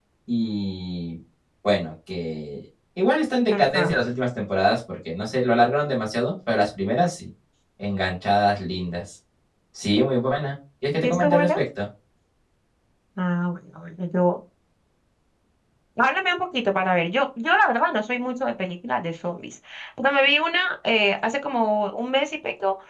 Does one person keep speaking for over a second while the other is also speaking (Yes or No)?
No